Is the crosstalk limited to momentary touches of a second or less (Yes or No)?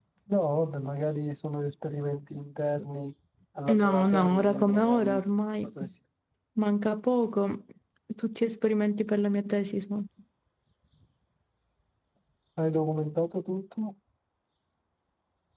No